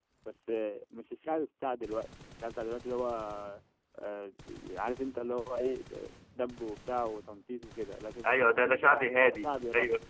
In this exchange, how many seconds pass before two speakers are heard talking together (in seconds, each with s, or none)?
8.2 s